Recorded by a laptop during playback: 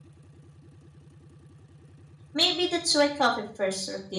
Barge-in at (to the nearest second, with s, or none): 2 s